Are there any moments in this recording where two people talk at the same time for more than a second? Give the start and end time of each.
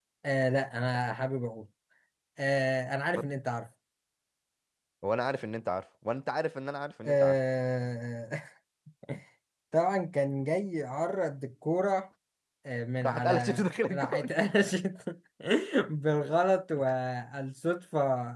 13.0-14.3

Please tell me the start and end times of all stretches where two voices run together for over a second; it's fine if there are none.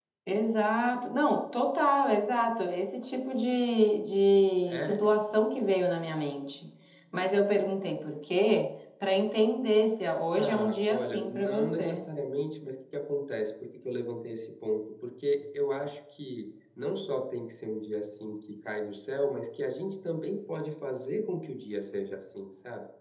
10.4-12.0

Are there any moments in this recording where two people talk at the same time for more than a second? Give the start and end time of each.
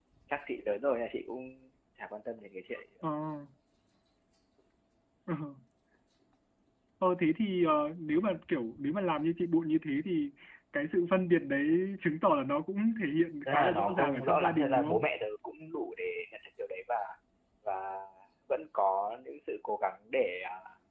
13.5-15.1

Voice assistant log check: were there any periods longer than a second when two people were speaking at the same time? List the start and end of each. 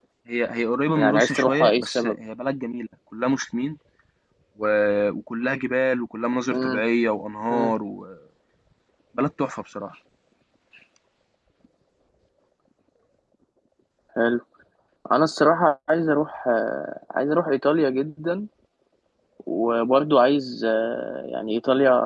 1.0-2.2

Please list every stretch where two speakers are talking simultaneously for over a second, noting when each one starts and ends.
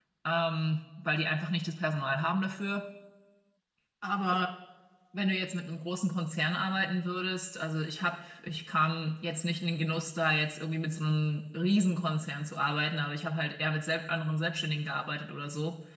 none

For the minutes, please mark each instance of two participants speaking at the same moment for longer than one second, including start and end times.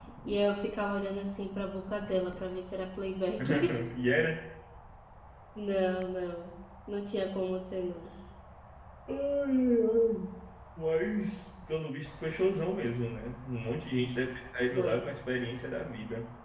none

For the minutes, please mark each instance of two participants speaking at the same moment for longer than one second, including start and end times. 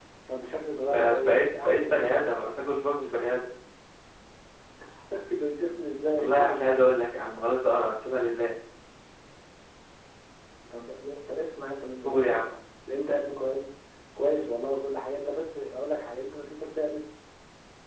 0.8-2.2

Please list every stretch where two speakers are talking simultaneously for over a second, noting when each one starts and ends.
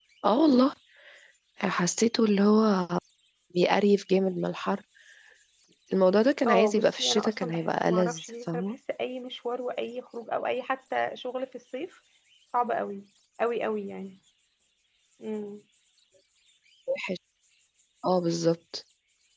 6.5-8.8

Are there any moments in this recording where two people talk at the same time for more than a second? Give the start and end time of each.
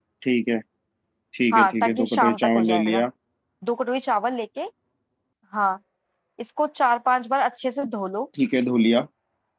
1.5-3.0

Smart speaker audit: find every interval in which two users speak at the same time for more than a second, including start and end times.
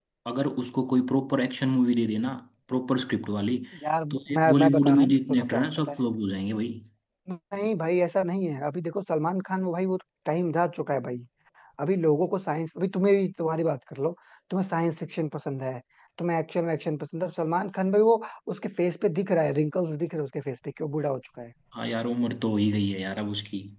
4.1-6.0

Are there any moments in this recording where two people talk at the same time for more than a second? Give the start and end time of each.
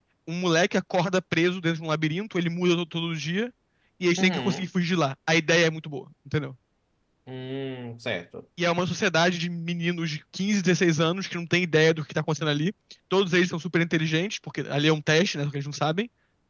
none

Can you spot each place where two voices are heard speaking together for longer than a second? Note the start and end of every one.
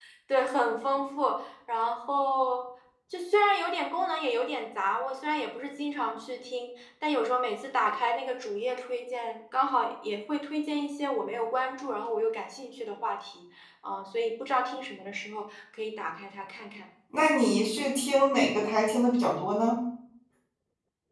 none

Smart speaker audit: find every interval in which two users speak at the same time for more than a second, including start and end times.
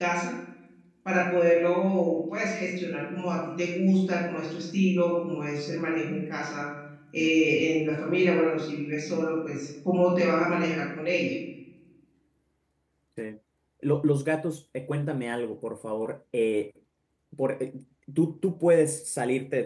none

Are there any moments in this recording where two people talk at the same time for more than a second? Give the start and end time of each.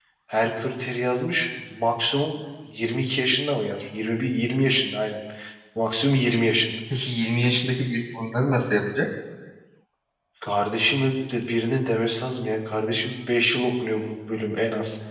none

